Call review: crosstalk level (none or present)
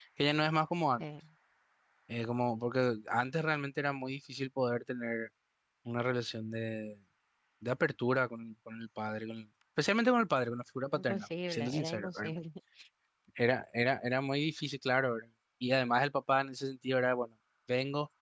present